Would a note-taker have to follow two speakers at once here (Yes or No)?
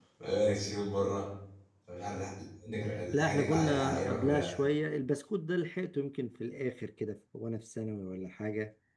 Yes